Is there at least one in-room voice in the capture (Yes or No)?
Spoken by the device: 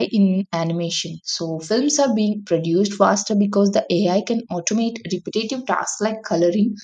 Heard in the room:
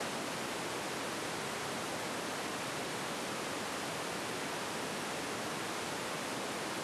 No